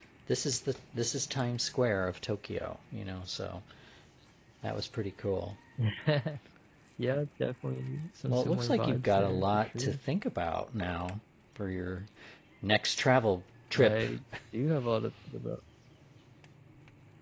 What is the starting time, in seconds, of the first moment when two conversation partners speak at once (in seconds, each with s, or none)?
8.3 s